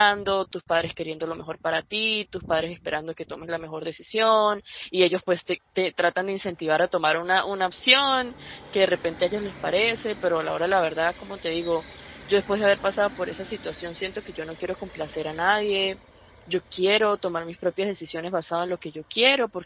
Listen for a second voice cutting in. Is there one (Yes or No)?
No